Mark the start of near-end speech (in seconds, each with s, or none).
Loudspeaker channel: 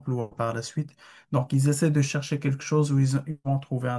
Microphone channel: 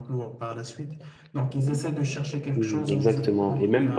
2.5 s